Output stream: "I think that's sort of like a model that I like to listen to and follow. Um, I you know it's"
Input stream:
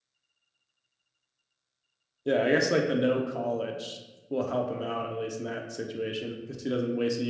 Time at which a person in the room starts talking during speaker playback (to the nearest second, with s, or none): 2 s